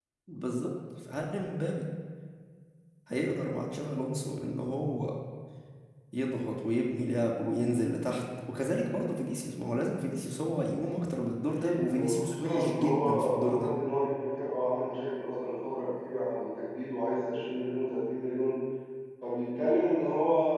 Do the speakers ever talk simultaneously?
Yes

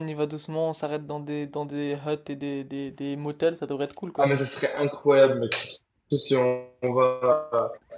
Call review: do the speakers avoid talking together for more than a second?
Yes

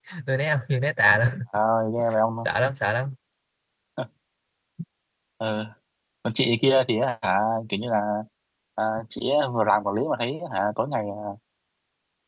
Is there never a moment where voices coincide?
Yes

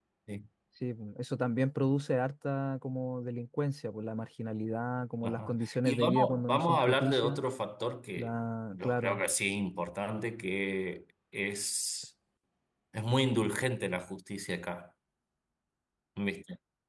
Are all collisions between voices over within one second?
No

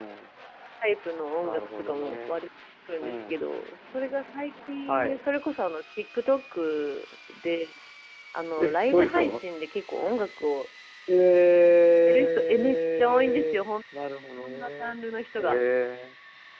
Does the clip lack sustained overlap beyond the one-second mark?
No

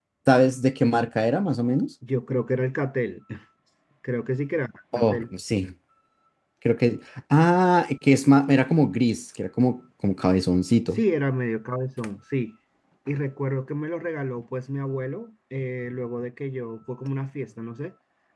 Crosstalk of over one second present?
No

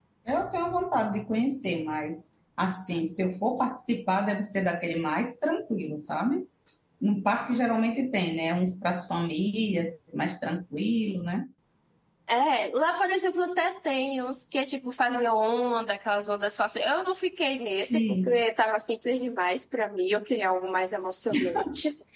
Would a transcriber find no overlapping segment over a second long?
Yes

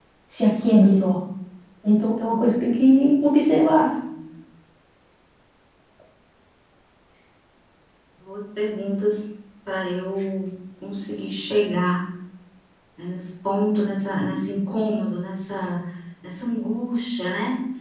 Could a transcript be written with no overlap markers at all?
Yes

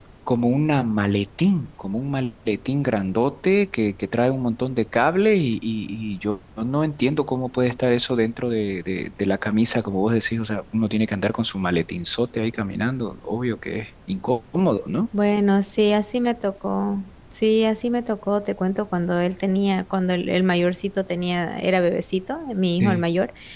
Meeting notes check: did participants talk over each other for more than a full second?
No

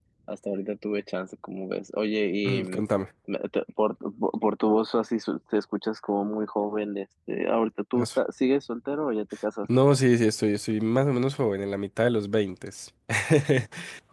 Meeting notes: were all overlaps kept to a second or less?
Yes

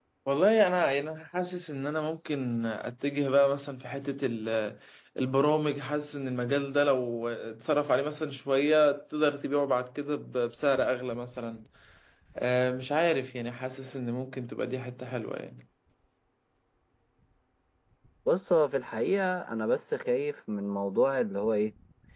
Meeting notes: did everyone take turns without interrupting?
Yes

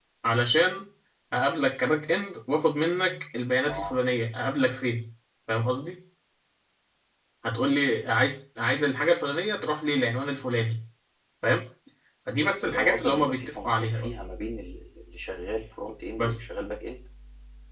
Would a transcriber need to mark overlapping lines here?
Yes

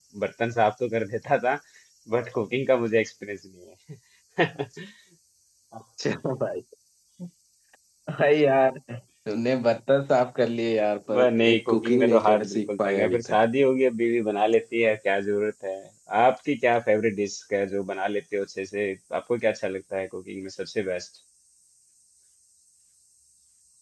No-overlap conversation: No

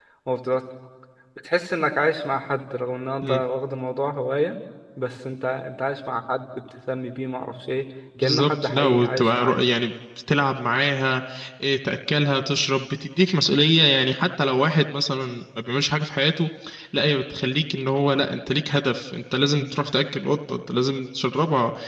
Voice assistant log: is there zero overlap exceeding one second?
No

